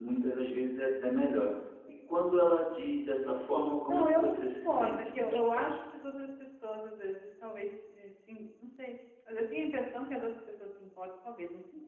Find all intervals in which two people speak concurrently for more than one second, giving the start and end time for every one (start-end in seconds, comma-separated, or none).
3.9-5.7